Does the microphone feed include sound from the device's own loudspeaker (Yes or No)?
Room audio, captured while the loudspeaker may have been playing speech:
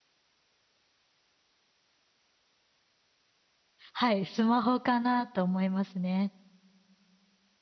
No